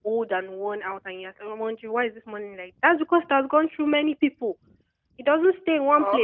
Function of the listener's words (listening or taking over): listening